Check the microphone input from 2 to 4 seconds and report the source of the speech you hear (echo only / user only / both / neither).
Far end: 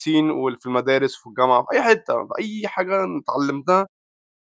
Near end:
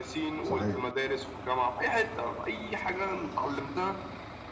echo only